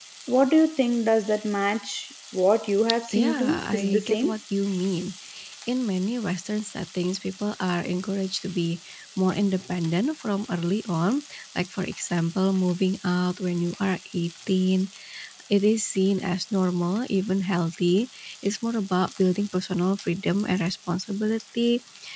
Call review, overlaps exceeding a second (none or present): present